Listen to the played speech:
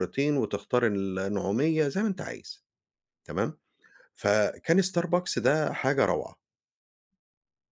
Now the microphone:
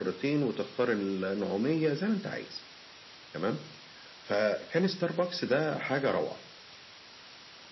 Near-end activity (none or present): none